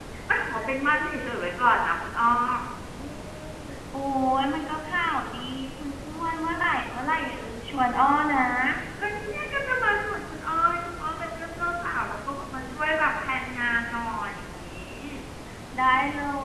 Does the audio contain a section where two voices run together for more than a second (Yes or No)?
No